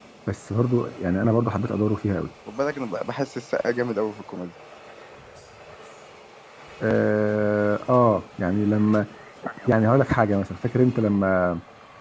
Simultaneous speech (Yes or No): No